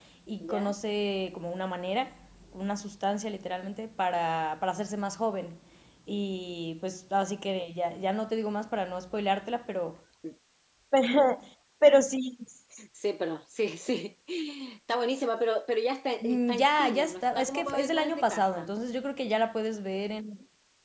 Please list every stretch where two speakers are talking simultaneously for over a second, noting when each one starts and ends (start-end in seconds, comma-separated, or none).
16.2-18.7